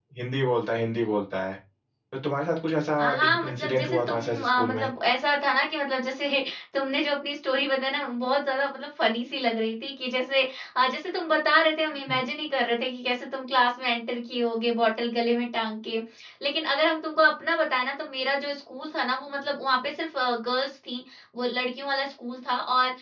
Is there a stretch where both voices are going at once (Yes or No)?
Yes